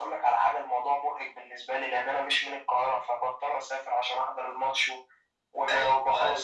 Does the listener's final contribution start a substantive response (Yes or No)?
Yes